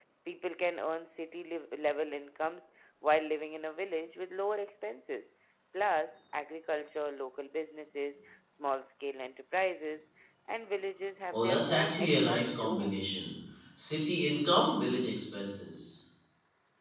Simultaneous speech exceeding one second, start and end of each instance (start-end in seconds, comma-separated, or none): 11.3-13.0